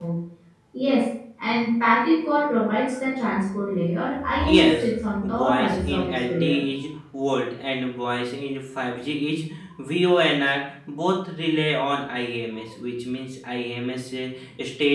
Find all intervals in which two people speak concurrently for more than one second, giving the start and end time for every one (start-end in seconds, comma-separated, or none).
4.4-6.6